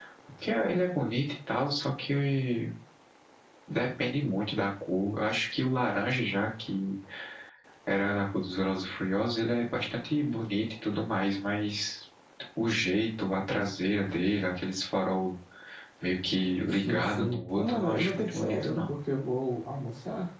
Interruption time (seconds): 17 s

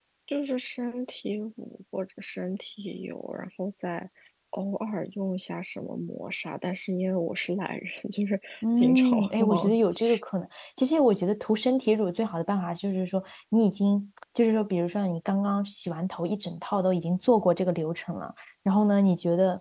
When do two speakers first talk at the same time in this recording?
9 s

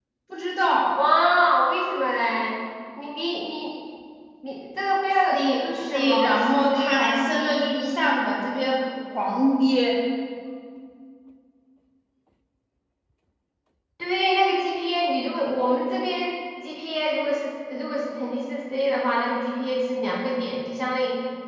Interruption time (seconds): 5 s

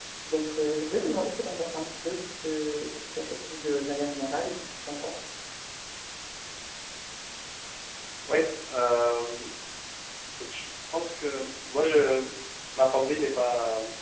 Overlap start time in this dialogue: none

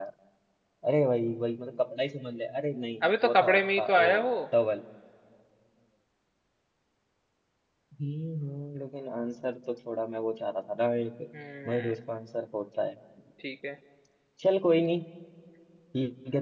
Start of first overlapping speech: 3 s

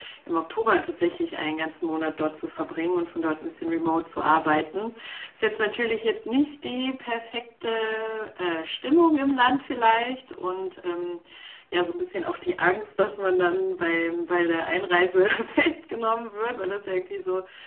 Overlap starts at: none

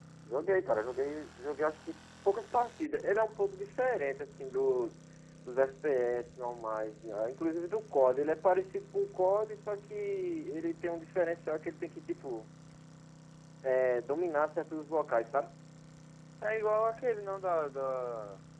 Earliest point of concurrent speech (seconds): none

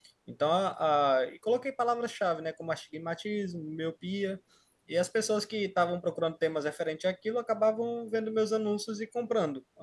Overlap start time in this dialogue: none

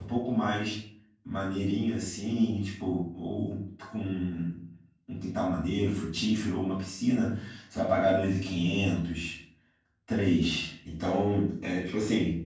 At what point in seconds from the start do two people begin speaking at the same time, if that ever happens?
none

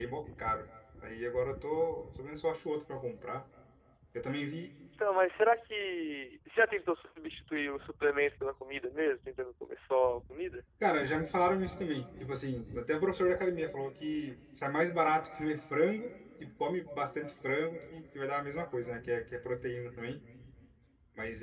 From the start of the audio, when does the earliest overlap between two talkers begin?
none

